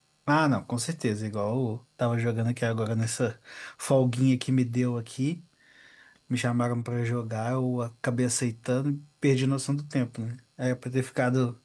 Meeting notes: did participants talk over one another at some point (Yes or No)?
No